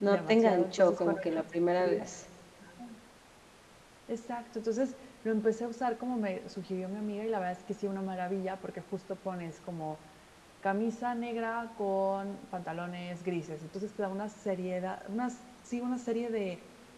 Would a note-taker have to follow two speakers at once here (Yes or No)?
Yes